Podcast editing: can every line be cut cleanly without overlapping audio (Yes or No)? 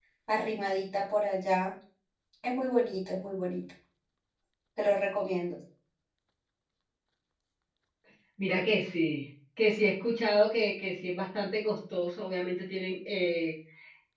Yes